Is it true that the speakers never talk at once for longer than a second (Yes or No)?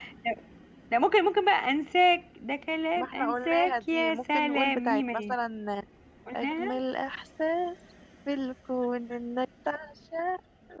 No